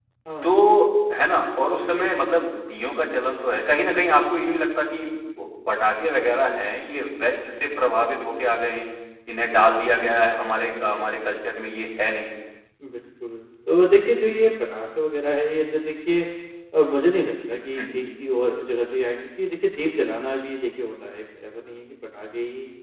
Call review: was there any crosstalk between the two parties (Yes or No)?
No